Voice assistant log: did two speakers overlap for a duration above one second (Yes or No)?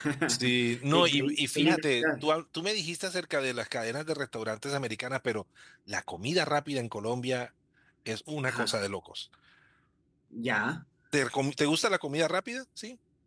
Yes